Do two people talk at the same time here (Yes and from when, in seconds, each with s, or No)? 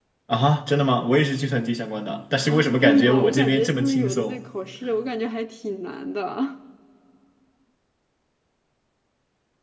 Yes, from 2.4 s